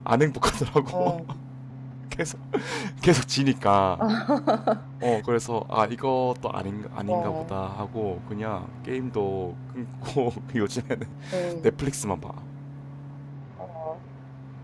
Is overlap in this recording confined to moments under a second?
Yes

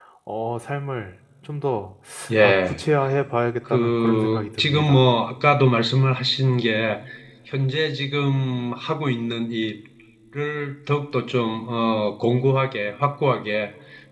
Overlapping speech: Yes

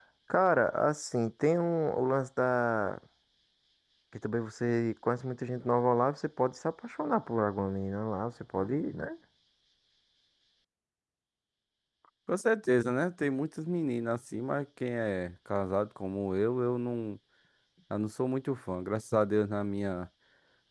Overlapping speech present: No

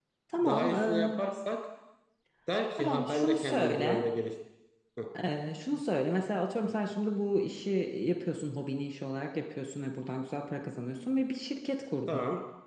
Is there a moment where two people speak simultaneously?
Yes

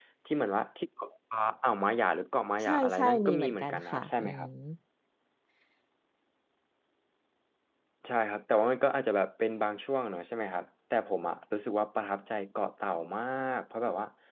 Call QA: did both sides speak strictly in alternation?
No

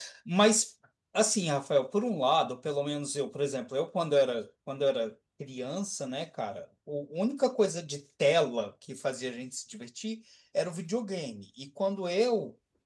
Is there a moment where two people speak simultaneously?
No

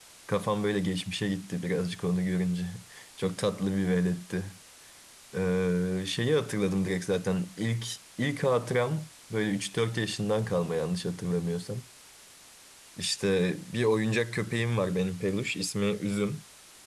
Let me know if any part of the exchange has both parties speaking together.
No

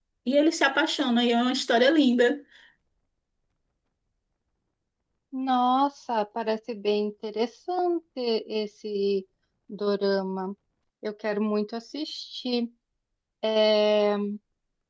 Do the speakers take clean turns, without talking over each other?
Yes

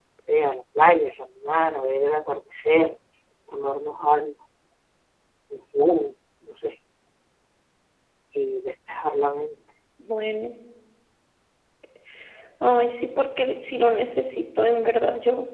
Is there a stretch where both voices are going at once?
No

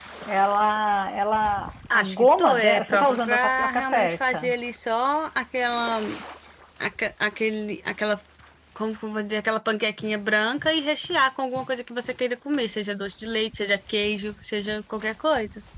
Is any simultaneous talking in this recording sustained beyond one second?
Yes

